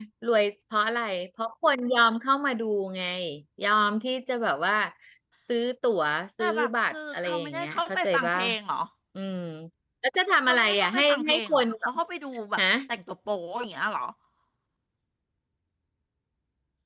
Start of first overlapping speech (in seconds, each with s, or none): 6.4 s